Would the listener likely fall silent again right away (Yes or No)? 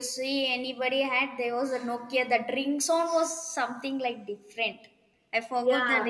No